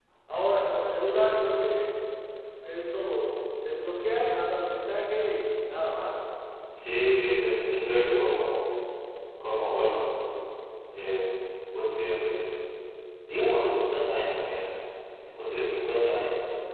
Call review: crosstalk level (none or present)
none